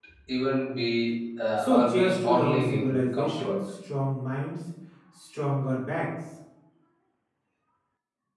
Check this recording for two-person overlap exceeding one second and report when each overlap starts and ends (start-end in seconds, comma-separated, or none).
1.6-3.6